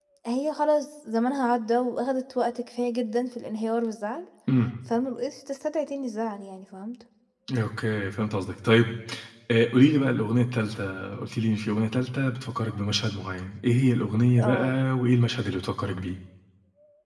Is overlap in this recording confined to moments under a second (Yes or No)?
Yes